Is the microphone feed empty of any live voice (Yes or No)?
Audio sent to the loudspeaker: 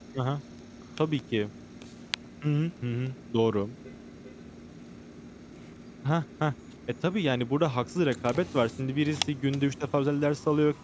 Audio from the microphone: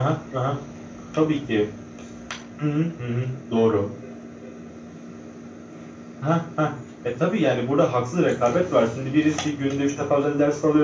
Yes